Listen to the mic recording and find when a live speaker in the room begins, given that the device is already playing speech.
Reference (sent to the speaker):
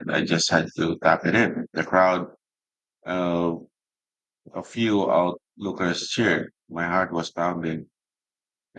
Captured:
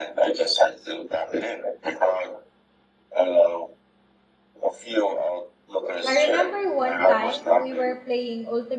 6.0 s

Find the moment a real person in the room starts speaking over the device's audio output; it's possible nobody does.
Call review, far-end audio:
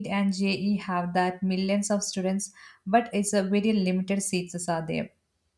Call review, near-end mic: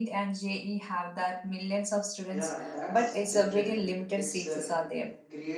2.4 s

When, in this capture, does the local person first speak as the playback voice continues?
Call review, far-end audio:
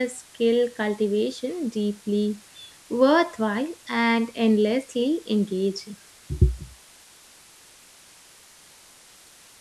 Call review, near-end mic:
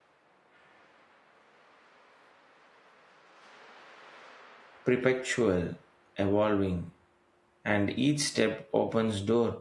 4.8 s

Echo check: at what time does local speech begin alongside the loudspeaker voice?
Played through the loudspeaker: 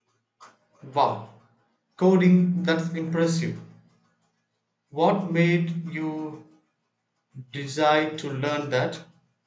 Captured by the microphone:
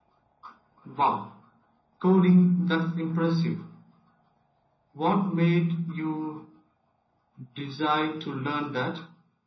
none

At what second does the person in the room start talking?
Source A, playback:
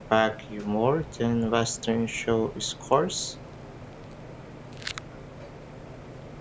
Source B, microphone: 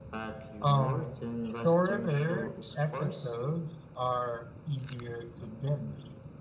0.6 s

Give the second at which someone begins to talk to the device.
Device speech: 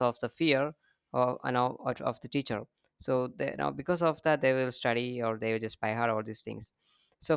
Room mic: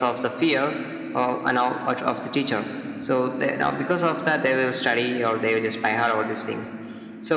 none

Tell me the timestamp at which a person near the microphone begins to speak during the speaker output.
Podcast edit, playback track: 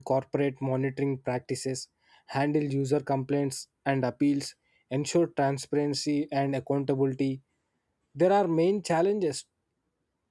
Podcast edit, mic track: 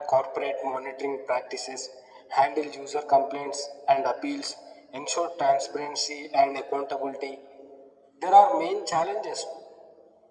none

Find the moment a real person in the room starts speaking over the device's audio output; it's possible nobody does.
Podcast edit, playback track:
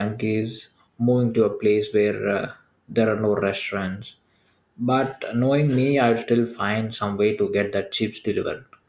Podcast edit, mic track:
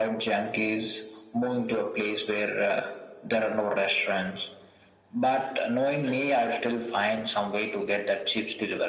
none

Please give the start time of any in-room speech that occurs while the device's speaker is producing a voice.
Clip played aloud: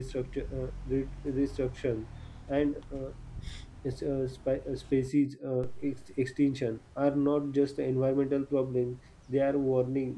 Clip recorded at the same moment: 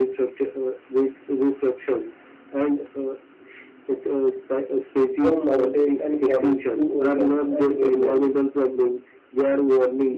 5.1 s

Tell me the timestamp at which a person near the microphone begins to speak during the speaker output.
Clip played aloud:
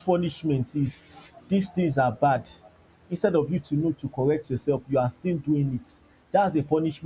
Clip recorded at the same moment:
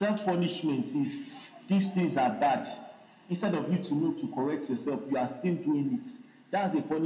none

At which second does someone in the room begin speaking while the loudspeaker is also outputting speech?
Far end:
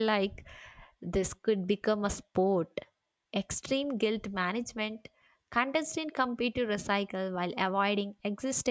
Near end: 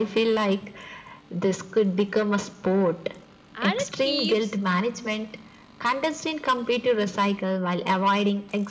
3.5 s

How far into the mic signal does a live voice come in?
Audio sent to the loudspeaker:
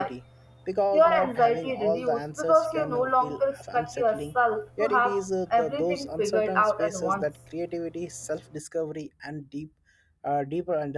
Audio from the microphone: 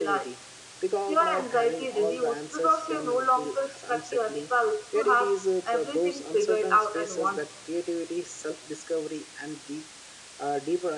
none

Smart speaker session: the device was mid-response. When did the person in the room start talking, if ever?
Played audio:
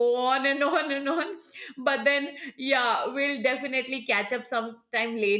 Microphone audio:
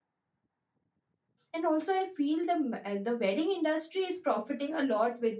1.5 s

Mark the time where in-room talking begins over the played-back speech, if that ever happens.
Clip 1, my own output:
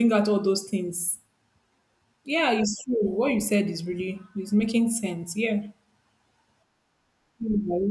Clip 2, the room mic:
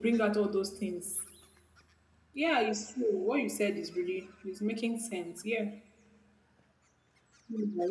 none

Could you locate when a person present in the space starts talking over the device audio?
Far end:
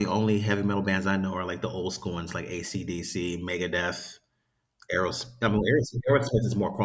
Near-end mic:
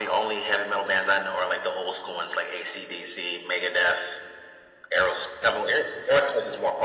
none

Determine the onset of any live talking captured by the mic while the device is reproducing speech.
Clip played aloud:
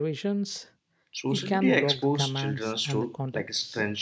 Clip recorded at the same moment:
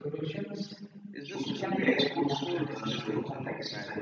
1.1 s

